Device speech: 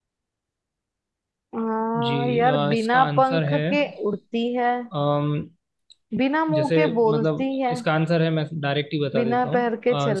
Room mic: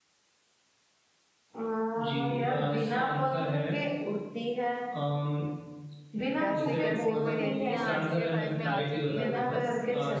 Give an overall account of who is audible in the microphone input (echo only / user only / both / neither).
both